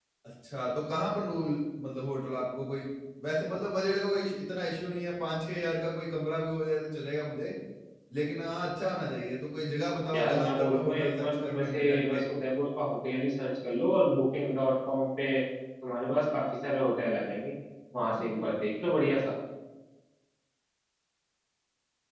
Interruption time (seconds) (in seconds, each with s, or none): 10.1 s